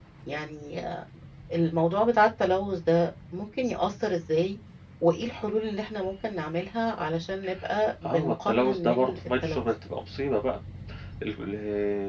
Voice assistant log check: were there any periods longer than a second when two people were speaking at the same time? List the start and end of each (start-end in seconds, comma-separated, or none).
8.0-9.7